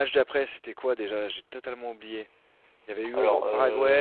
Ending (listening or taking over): taking over